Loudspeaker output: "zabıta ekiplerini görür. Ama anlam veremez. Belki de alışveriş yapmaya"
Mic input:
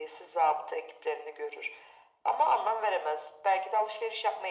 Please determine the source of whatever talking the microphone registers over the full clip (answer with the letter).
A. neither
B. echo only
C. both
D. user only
B